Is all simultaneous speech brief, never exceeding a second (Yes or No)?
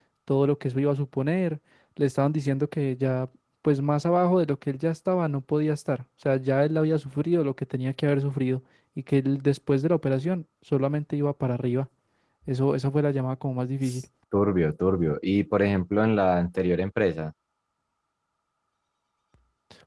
Yes